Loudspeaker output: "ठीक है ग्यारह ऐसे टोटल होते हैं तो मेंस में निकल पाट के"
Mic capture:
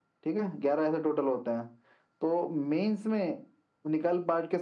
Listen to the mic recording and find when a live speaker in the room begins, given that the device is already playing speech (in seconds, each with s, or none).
none